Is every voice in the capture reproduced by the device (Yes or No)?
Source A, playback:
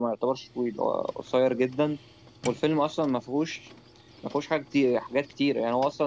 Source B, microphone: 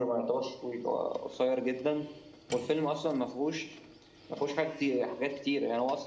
Yes